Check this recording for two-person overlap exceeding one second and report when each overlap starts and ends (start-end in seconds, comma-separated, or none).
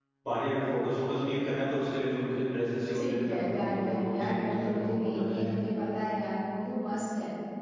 2.9-5.5